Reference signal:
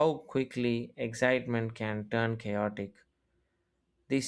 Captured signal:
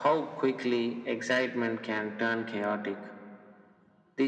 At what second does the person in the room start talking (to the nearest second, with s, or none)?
none